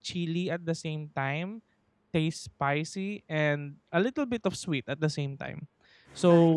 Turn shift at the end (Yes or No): No